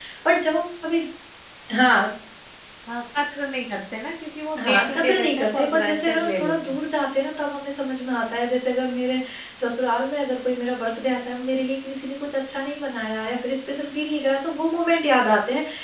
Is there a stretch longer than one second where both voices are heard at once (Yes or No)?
Yes